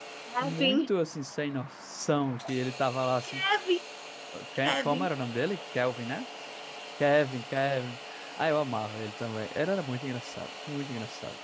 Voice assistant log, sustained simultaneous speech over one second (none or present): none